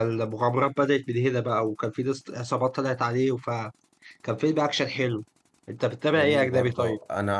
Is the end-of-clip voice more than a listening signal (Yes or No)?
Yes